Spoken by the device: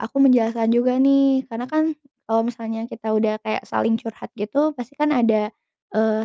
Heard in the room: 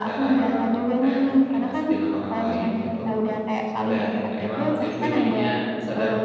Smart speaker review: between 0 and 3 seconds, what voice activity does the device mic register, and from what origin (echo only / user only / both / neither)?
both